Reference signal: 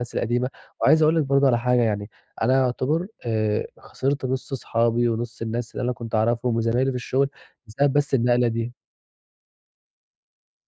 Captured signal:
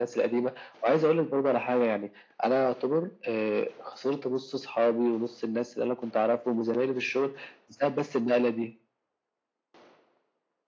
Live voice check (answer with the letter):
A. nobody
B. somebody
A